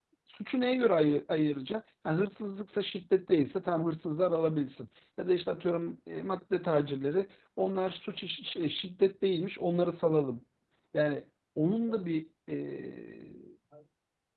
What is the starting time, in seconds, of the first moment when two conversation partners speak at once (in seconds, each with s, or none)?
none